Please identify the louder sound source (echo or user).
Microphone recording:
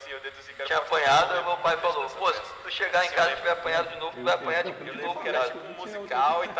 echo